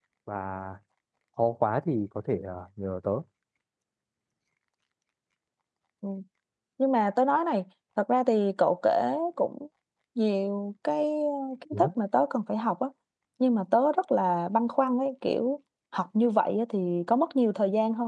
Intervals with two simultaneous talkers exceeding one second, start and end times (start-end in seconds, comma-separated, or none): none